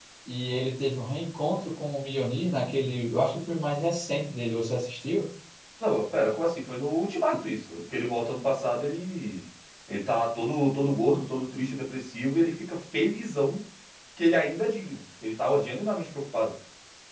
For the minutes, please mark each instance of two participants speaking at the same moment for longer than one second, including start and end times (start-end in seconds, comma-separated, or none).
none